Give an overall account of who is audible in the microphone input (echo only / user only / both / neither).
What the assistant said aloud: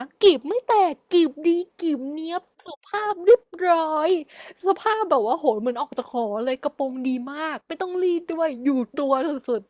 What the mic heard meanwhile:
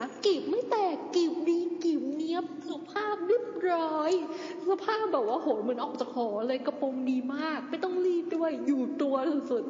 echo only